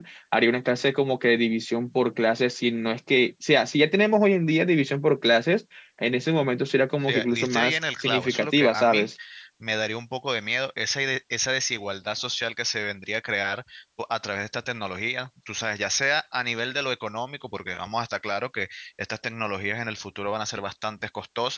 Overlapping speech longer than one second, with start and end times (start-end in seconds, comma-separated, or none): 7.1-9.1